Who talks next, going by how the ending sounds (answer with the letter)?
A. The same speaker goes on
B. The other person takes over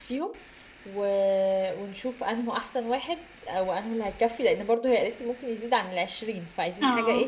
B